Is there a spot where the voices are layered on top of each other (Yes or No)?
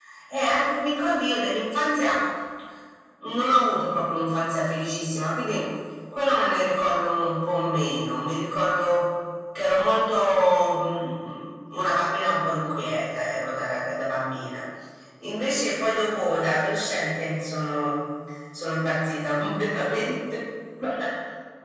No